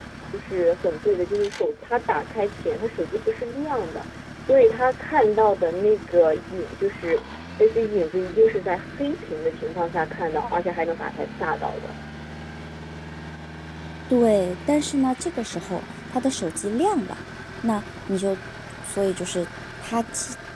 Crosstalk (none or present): none